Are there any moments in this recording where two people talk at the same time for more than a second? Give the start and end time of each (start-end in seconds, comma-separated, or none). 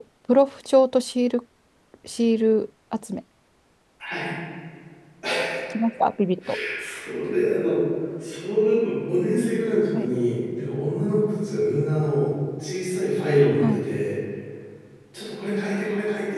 none